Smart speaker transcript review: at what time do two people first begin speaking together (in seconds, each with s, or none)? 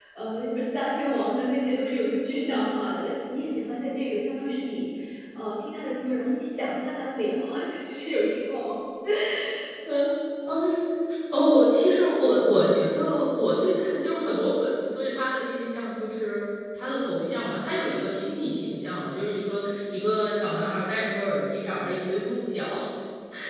none